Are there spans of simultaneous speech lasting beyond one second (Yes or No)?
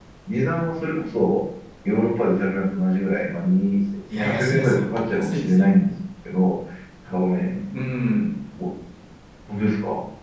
Yes